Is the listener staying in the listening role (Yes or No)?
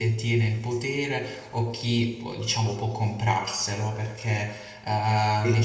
Yes